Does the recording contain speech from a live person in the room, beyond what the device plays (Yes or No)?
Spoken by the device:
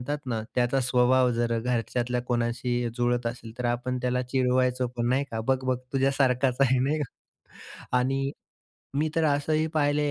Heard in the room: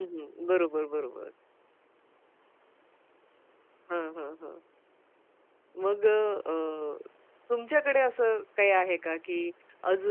Yes